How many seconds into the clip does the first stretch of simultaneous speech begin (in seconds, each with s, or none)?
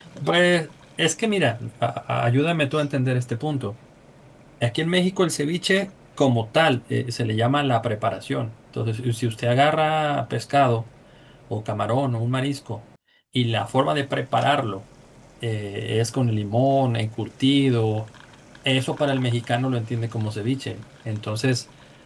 none